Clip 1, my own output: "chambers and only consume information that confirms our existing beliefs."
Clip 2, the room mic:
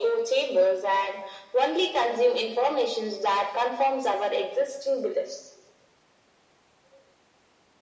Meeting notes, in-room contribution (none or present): none